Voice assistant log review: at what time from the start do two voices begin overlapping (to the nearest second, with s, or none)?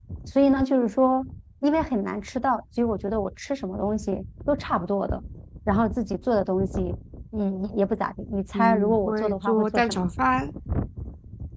9 s